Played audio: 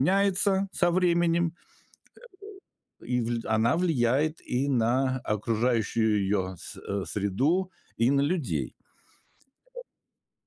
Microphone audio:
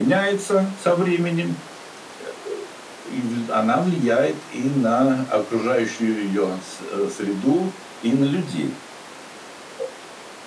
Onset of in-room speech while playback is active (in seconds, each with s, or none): none